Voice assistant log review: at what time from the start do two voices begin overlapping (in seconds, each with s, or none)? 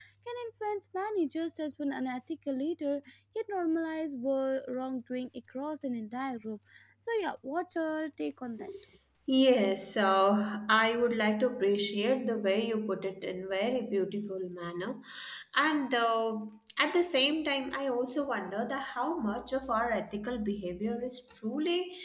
none